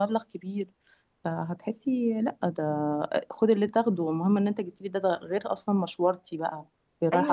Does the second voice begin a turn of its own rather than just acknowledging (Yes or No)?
Yes